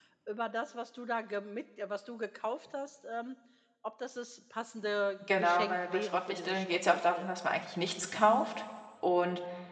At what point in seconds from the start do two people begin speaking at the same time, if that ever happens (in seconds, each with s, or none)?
5.2 s